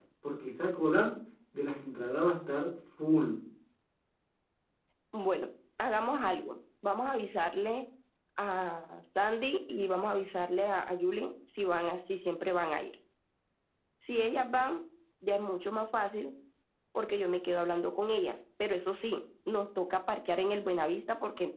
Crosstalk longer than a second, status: none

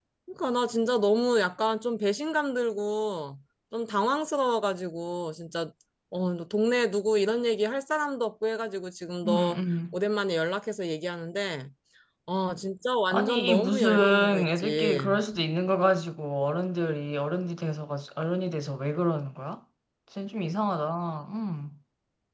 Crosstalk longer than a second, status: present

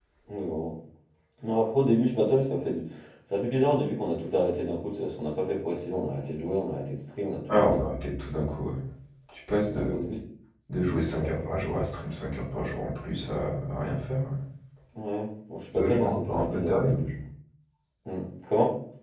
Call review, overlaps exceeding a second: present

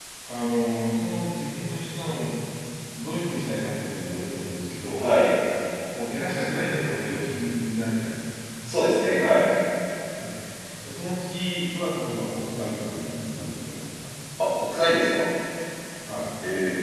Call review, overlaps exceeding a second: none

